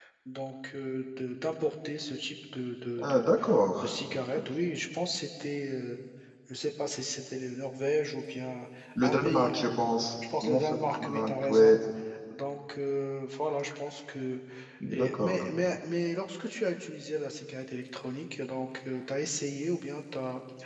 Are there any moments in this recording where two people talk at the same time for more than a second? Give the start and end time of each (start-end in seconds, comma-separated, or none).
10.4-11.7